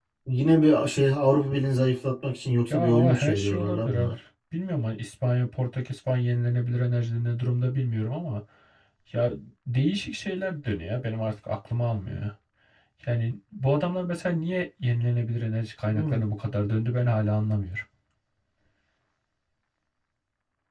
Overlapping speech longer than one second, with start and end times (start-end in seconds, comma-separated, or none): 2.7-4.1